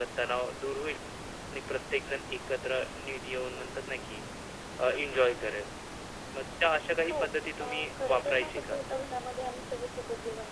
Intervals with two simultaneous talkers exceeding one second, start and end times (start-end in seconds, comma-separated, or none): 7.6-8.8